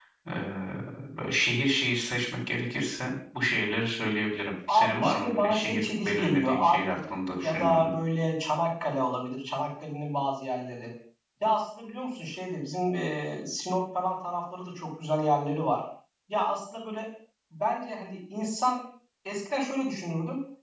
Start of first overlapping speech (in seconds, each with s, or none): 4.7 s